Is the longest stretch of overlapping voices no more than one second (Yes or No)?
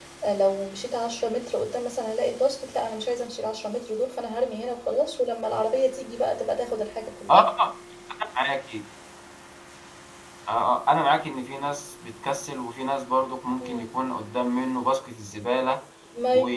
Yes